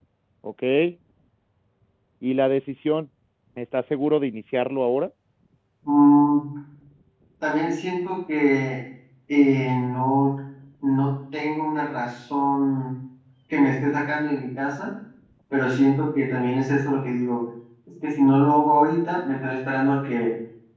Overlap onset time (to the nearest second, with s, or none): none